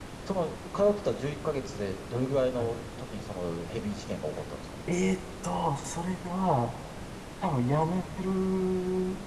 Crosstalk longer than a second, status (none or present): none